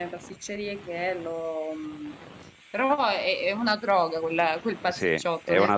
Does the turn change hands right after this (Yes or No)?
Yes